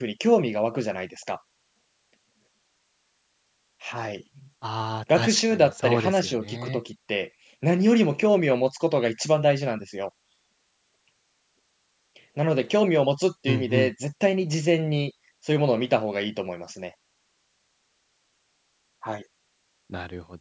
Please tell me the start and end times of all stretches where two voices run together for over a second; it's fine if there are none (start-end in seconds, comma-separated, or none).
5.2-6.8